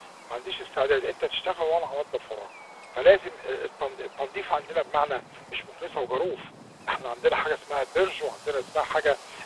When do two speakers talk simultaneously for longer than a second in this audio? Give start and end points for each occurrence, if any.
none

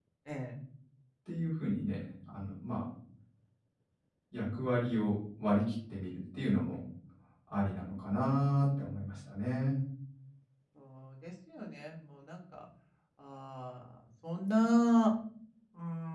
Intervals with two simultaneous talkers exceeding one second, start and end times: none

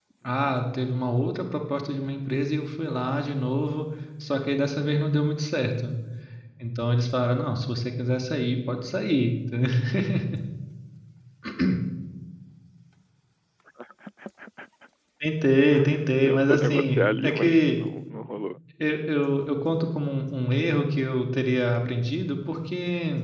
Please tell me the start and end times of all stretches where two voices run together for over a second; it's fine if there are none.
16.2-17.8

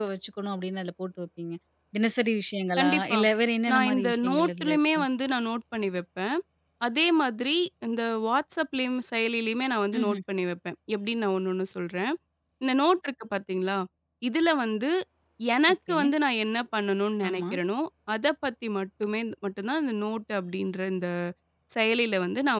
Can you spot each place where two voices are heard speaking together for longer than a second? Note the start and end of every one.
3.7-5.0

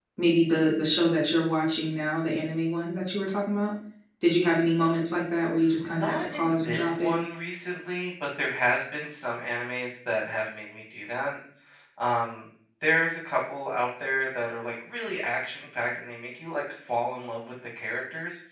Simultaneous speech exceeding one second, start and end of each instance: 5.9-7.1

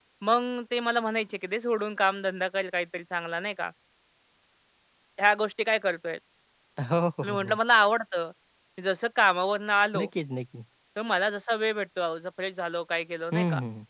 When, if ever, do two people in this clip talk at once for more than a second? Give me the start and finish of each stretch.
none

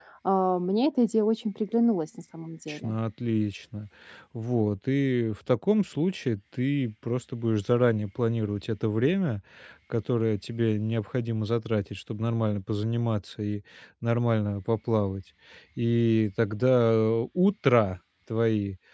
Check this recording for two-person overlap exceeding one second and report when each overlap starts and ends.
none

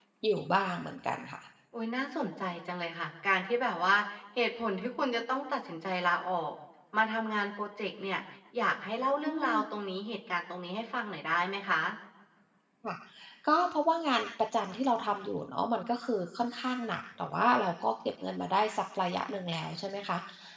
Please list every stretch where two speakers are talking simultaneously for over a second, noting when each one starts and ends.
none

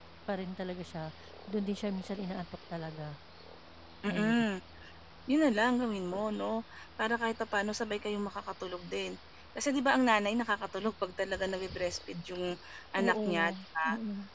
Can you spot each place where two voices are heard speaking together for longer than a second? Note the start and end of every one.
none

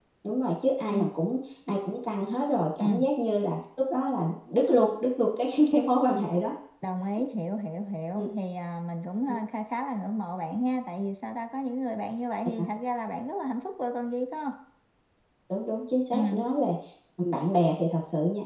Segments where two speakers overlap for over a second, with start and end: none

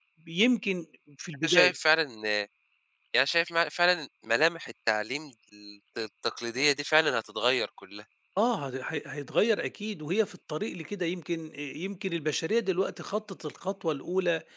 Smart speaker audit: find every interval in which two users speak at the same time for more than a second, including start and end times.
none

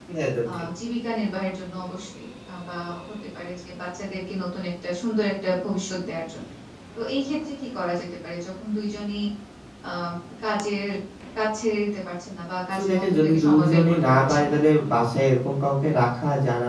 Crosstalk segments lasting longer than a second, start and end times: 12.7-14.6

